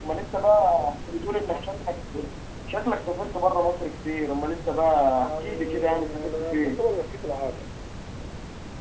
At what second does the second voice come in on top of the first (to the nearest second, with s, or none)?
5 s